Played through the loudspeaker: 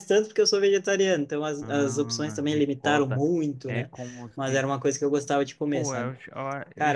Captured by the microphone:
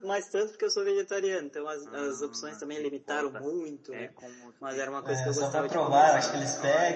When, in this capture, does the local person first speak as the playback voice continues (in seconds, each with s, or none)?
5.0 s